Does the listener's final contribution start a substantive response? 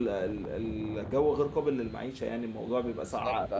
Yes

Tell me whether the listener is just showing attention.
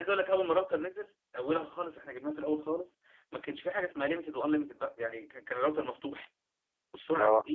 Yes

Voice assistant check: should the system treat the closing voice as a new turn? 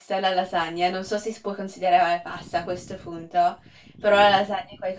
No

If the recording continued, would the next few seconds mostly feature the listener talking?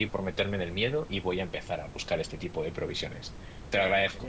Yes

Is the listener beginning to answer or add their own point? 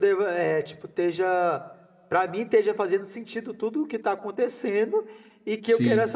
No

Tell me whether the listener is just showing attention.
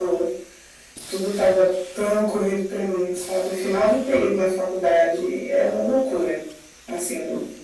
Yes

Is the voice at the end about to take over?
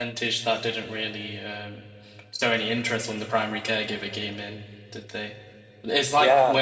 No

